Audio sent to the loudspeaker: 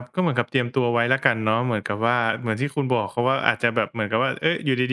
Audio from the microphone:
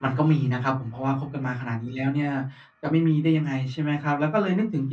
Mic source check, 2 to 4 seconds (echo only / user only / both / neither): user only